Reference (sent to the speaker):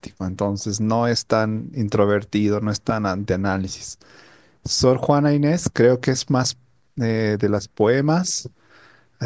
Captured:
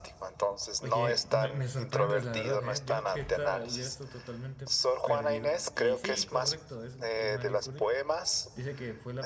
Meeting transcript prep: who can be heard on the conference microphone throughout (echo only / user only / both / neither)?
both